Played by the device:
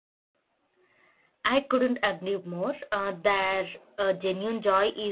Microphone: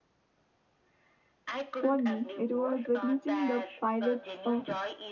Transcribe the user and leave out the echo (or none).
For me, it was witnessing the pilots of